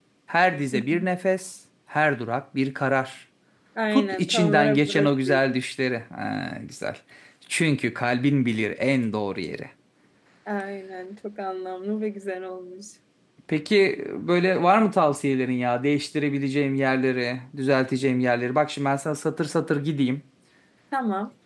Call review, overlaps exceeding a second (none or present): present